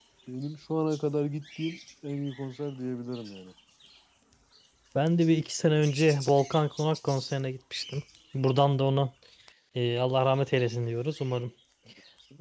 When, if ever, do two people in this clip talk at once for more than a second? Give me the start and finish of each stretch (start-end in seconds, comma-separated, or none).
none